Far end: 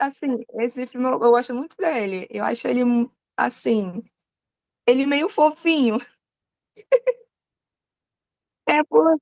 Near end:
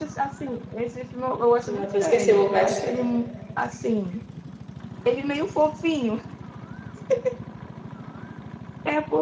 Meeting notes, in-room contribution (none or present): present